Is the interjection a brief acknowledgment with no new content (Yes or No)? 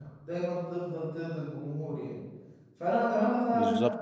Yes